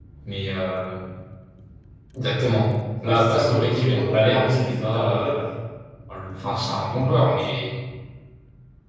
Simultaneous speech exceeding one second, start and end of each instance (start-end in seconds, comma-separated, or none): 3.0-5.4